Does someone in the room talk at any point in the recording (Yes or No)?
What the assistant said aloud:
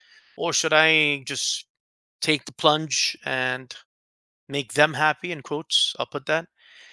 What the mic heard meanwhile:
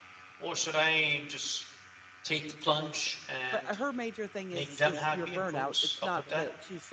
Yes